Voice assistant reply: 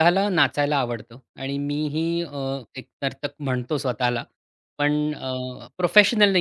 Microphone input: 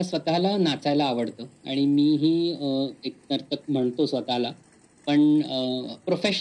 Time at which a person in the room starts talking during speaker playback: none

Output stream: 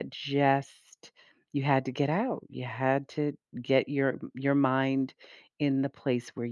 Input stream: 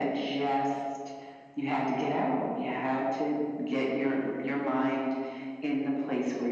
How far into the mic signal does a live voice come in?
none

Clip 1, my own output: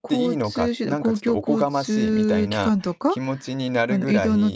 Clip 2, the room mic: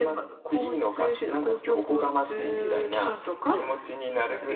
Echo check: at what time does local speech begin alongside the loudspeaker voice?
2 s

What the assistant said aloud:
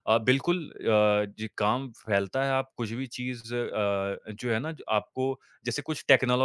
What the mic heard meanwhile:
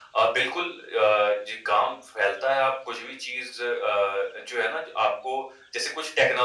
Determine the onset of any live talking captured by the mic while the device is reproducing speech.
none

